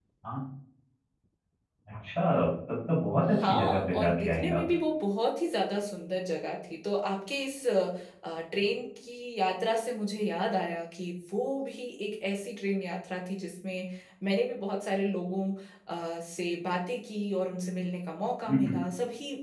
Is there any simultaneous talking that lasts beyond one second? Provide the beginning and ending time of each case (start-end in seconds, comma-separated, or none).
3.3-4.6